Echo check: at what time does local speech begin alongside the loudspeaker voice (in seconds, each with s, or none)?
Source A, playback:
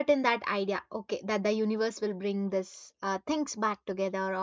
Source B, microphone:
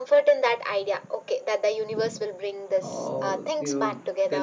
2.8 s